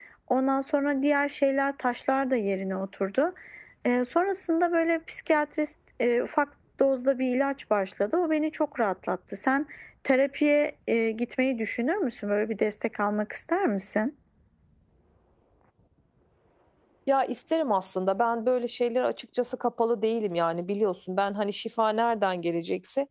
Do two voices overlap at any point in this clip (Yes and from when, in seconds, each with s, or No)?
No